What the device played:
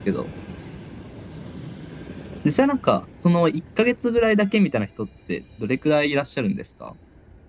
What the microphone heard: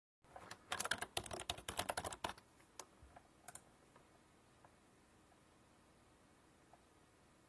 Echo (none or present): none